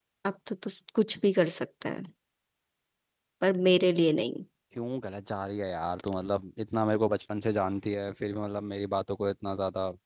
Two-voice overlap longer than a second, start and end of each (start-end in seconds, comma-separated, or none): none